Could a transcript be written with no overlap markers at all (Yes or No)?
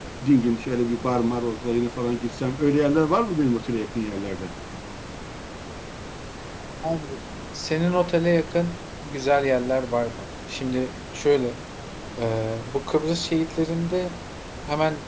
Yes